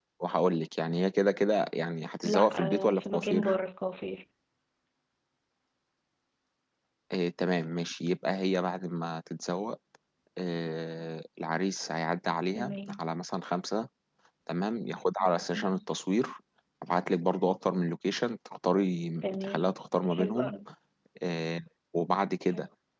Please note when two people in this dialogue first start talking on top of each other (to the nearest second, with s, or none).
2 s